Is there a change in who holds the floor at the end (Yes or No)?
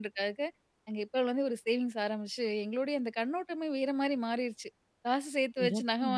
No